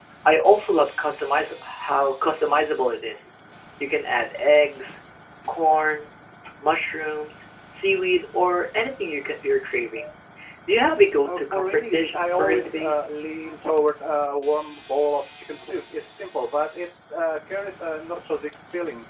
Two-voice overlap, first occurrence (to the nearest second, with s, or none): 11 s